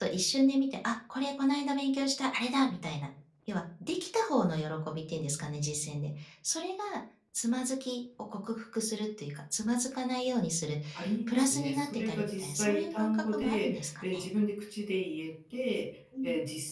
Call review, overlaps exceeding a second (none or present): present